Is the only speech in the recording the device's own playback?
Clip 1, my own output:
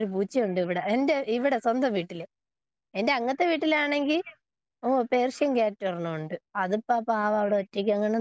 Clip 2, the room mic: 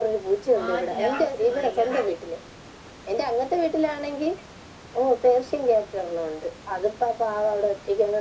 No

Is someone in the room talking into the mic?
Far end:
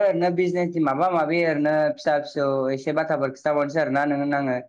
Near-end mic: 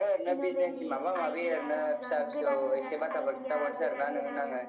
Yes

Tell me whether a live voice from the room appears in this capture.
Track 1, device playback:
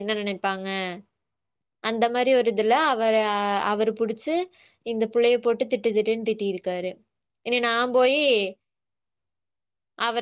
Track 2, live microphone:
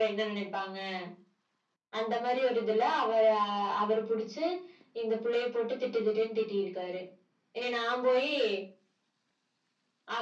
No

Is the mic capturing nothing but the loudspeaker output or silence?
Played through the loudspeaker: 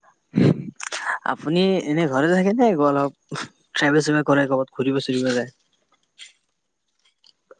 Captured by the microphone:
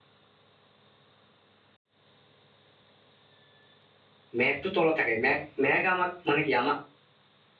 No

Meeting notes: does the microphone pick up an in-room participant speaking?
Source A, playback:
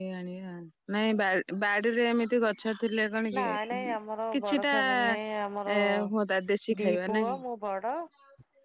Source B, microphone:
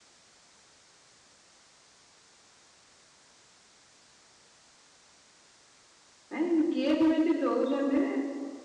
Yes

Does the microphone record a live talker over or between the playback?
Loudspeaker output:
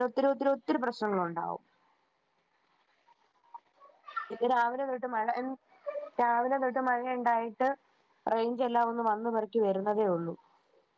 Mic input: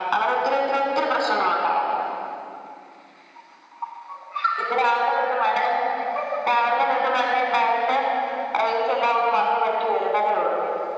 No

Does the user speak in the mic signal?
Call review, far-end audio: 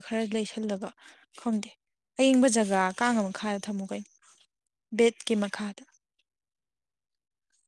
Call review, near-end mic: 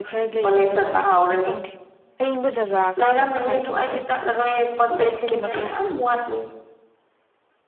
Yes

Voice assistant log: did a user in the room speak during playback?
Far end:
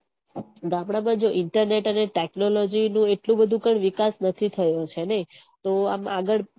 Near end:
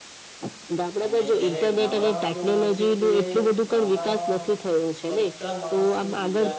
Yes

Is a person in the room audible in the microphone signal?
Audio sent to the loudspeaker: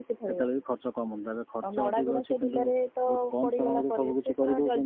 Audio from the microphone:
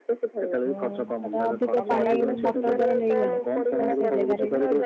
Yes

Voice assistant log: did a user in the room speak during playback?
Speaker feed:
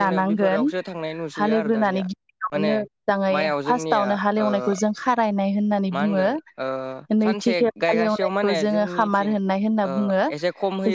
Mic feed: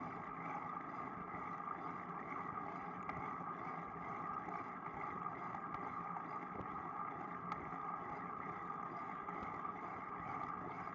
No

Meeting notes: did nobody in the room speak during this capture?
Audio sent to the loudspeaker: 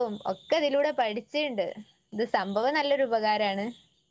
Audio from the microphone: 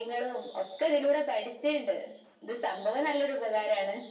Yes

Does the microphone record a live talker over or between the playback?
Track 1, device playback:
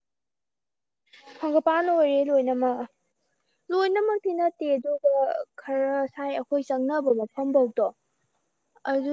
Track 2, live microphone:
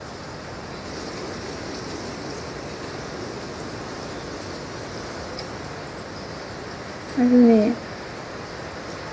Yes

